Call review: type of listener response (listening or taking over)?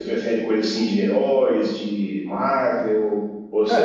taking over